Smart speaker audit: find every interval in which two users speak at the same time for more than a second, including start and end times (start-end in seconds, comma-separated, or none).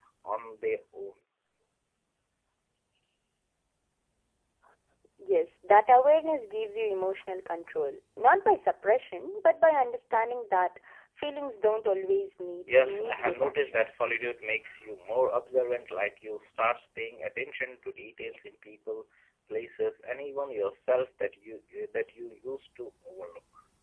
12.8-14.1